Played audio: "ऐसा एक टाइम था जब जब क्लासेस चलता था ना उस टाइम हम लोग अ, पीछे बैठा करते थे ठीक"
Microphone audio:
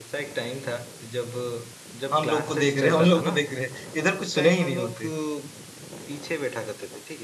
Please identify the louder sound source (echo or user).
user